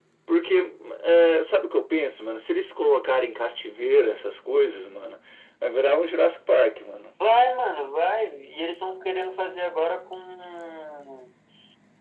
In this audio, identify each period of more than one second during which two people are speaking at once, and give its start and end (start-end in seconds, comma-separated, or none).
none